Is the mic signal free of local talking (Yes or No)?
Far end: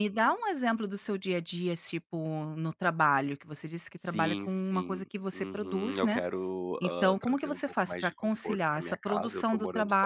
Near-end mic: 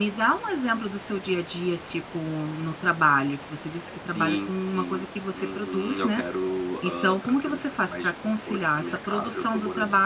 Yes